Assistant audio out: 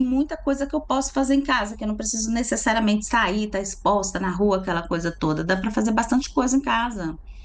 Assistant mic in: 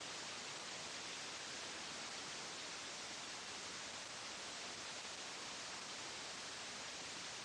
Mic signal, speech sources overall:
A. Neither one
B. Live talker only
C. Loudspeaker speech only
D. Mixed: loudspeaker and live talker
A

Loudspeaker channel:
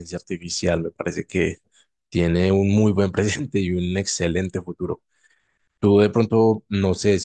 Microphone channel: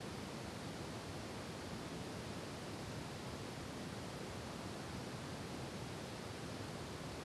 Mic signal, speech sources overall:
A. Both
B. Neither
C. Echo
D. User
B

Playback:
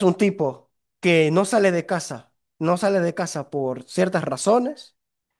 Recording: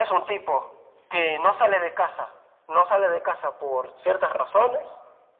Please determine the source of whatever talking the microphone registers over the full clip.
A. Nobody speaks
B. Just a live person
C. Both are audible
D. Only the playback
D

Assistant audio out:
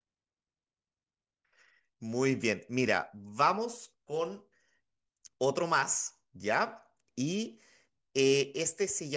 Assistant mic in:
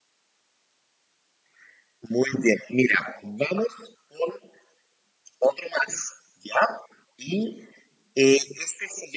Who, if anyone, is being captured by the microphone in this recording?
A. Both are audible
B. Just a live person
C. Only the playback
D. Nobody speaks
C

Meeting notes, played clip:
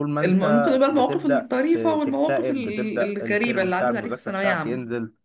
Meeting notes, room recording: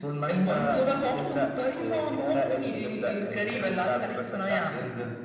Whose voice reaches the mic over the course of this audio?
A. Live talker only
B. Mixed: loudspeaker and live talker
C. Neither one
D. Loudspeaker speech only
D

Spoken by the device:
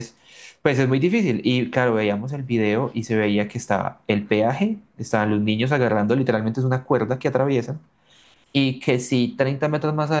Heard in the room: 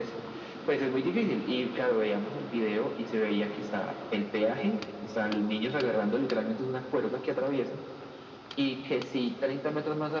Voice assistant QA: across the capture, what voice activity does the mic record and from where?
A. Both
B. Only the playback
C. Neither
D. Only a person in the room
B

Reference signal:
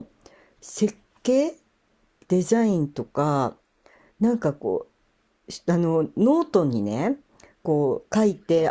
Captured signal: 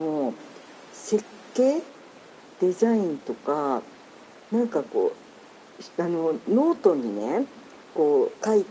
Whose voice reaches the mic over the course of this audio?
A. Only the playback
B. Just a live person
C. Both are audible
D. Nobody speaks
A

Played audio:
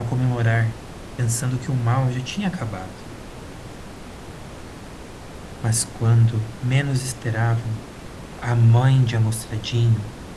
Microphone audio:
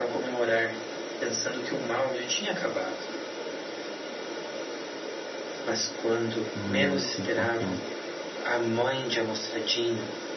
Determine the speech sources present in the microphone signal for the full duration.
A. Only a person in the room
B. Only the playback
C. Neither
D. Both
D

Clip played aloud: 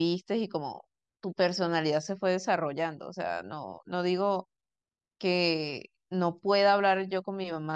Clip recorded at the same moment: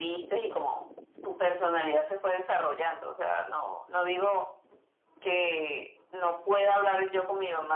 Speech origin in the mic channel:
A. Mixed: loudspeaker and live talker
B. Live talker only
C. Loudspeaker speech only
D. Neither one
C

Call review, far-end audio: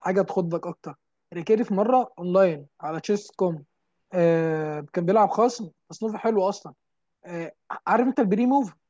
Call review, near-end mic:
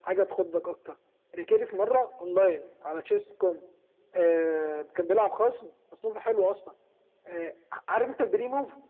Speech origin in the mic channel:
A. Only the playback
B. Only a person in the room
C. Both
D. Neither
A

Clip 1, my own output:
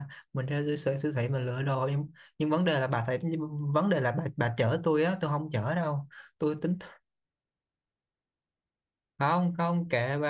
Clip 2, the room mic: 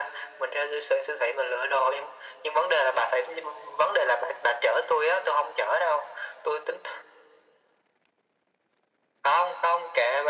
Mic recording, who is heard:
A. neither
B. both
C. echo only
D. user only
C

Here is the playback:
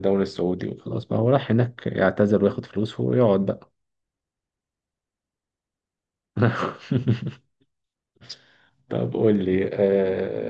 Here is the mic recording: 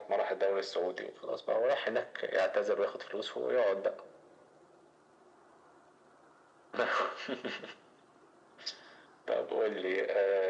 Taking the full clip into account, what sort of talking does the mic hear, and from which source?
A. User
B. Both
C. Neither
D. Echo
D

